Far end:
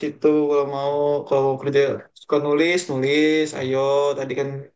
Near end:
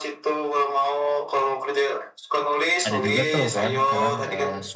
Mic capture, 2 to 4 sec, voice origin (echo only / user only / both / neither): both